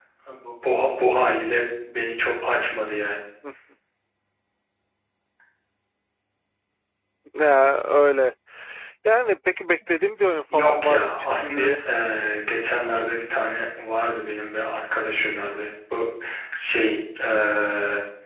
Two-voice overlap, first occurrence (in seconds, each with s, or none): 10.5 s